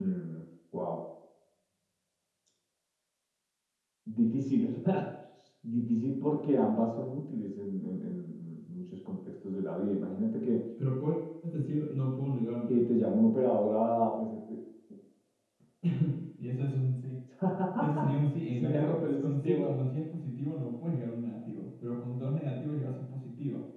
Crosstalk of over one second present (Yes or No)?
Yes